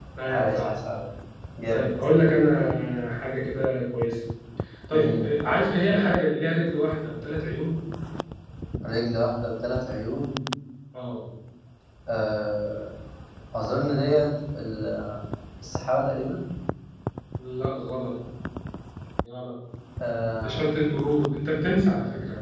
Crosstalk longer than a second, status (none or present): none